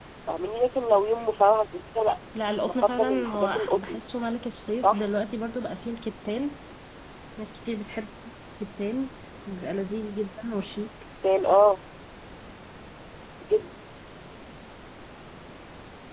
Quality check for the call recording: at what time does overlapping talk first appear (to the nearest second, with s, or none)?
3 s